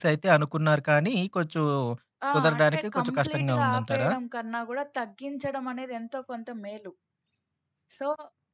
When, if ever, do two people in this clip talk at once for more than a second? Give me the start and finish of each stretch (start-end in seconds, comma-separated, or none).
2.3-4.1